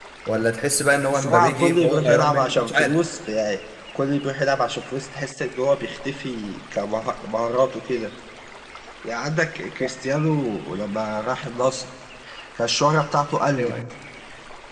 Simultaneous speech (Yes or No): Yes